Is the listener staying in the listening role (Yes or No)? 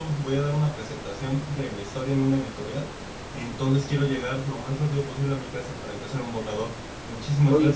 No